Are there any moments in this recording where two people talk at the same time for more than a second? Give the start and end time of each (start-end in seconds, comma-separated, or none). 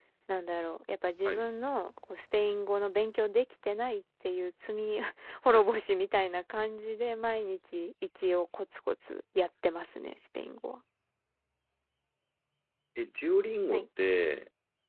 none